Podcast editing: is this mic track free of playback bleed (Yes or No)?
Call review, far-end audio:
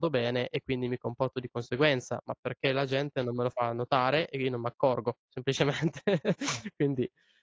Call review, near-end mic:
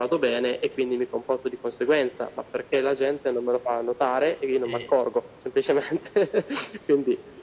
No